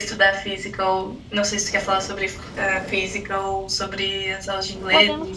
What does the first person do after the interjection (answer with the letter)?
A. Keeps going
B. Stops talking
B